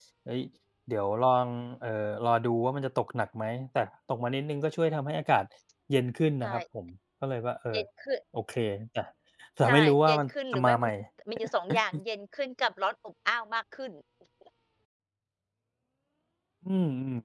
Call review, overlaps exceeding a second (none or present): present